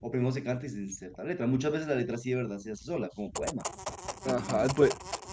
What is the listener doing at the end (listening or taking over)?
taking over